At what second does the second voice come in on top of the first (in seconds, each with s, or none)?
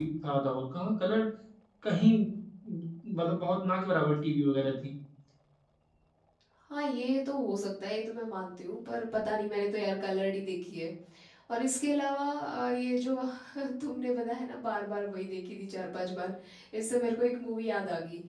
none